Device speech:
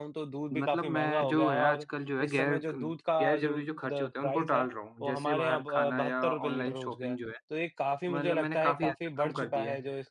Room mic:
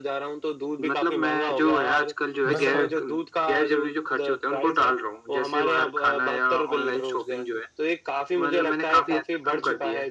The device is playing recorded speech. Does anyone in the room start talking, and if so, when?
2.5 s

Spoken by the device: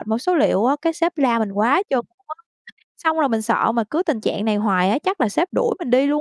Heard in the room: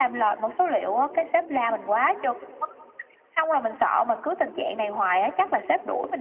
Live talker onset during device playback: none

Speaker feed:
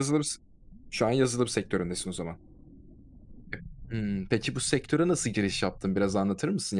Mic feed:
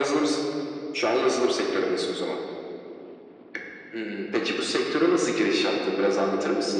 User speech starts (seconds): none

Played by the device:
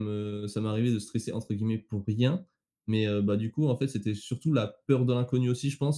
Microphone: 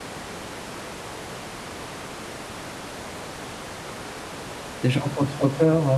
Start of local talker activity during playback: 4.8 s

